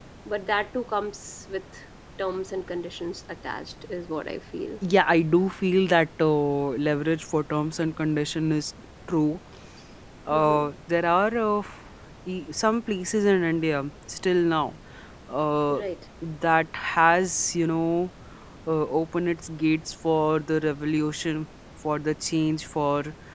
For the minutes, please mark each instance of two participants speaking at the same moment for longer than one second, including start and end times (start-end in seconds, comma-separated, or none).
none